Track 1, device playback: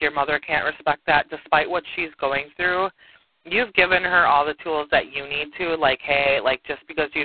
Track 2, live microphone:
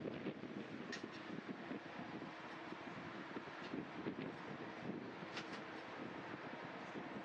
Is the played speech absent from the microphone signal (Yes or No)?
Yes